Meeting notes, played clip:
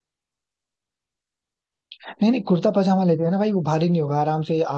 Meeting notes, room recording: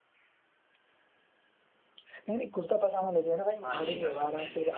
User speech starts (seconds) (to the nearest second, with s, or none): 4 s